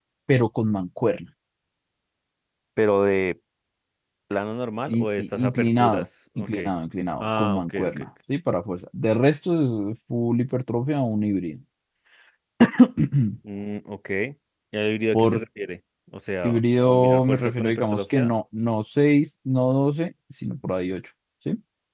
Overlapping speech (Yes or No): Yes